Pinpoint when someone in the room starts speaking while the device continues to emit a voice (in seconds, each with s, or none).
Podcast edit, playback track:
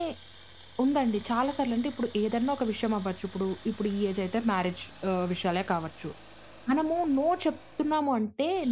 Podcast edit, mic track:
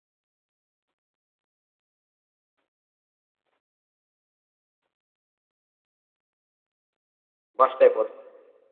7.6 s